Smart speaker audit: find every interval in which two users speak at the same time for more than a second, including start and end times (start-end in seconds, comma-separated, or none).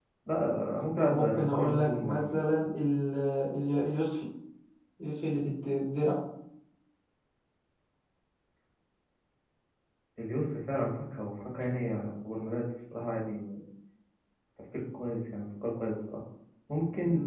1.0-2.4